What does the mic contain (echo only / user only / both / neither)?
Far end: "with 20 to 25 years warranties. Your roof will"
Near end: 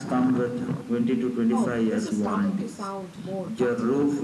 both